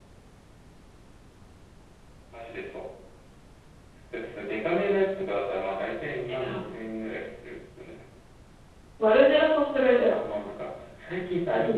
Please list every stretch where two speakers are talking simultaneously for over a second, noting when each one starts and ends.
none

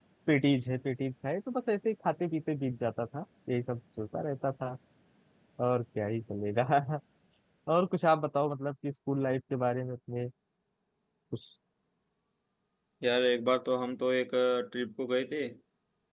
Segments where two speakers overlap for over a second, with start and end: none

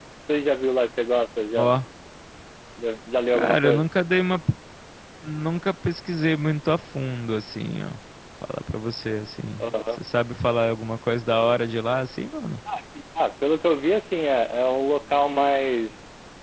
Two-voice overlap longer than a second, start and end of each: none

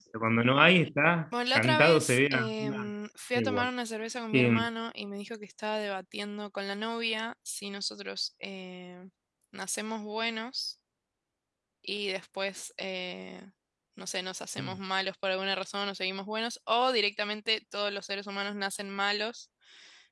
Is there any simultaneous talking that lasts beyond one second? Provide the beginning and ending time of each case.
1.6-2.9

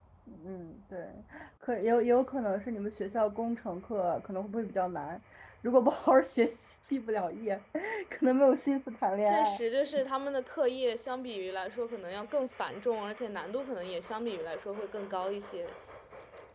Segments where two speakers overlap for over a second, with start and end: none

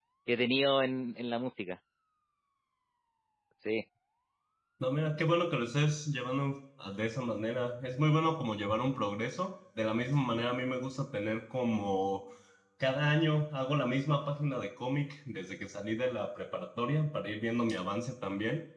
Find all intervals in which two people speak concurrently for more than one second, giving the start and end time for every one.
none

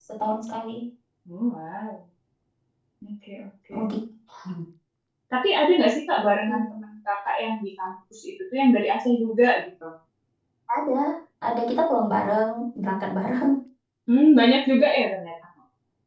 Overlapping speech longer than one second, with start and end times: none

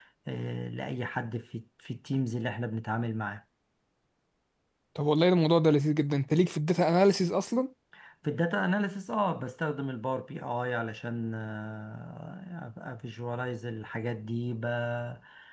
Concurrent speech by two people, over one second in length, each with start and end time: none

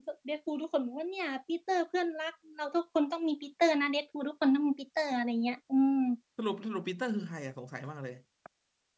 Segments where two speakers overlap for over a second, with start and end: none

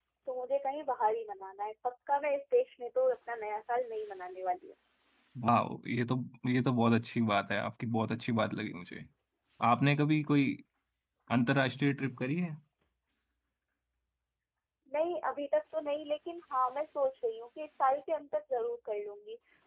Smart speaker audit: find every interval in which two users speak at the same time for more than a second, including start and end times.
none

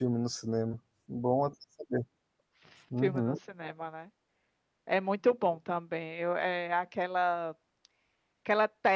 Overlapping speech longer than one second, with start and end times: none

